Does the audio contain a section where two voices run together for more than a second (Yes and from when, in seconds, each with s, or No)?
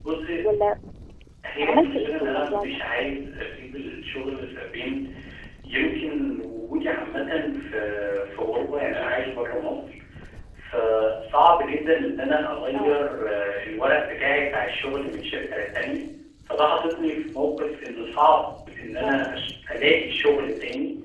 Yes, from 1.6 s